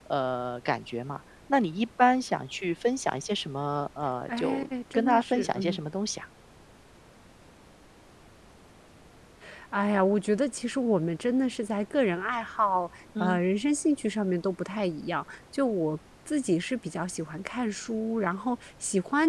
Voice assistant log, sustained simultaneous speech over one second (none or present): present